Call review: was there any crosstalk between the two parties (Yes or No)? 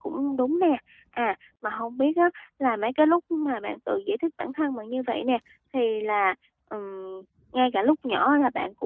No